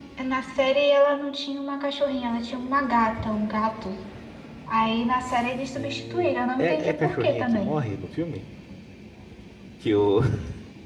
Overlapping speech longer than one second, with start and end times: 5.8-7.7

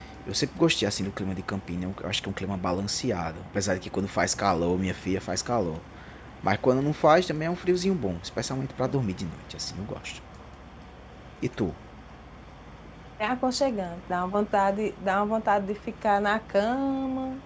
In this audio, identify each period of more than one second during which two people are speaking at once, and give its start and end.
none

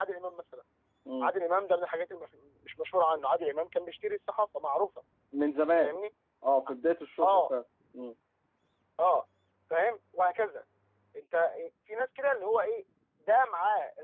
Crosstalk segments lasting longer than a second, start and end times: none

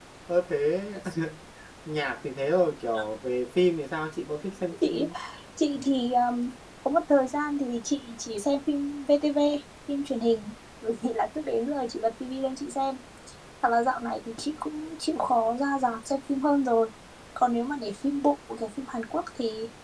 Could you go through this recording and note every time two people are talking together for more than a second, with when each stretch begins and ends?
none

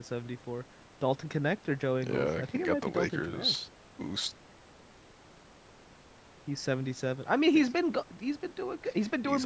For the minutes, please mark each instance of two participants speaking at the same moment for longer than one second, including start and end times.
2.0-3.5

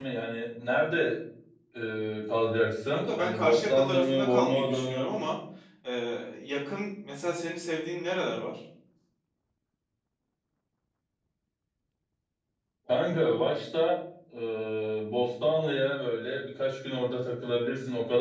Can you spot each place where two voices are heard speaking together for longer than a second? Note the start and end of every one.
2.9-5.0

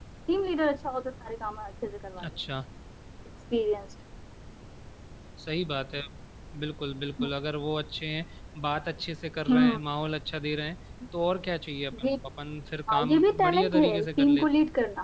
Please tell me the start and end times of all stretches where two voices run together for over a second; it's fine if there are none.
12.9-14.5

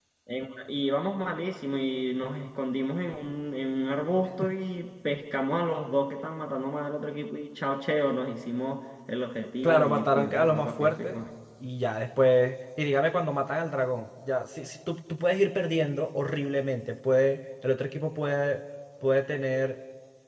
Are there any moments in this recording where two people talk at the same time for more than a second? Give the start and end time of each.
9.6-11.2

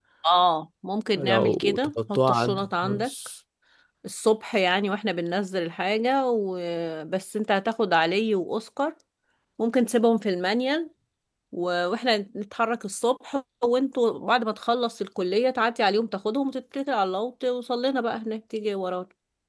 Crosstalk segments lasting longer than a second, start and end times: 1.2-3.1

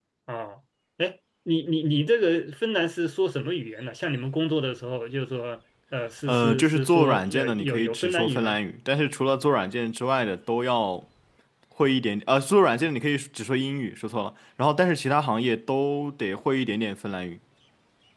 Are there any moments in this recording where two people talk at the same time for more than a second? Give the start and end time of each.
6.3-8.6

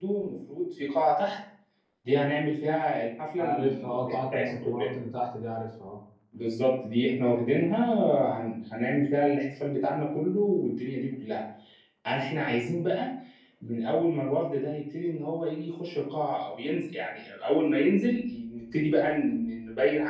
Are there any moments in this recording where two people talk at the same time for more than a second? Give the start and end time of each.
3.4-4.9

